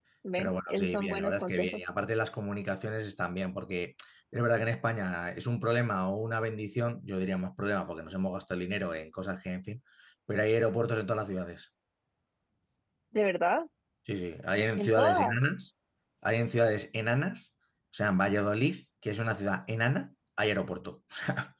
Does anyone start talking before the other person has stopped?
Yes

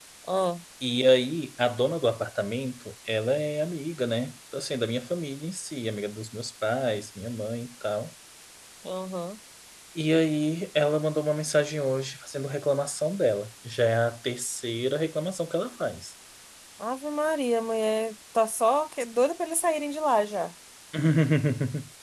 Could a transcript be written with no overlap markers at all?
Yes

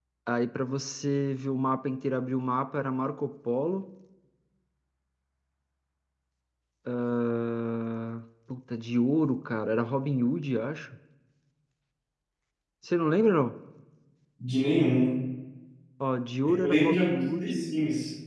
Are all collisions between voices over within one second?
No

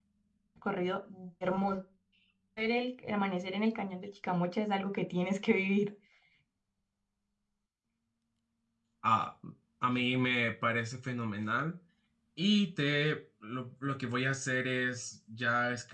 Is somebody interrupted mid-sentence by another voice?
No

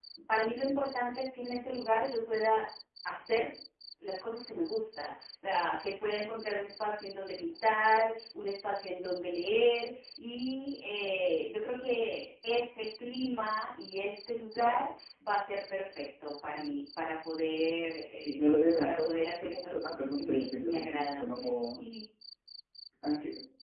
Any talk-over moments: Yes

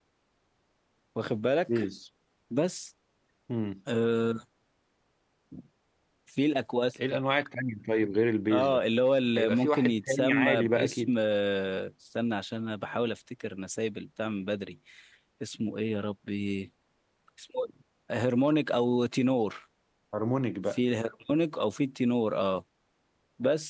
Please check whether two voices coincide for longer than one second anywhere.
Yes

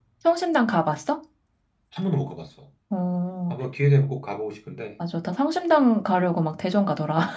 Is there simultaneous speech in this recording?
No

